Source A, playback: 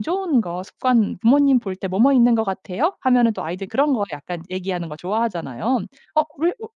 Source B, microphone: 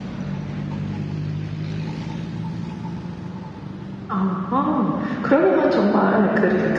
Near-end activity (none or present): present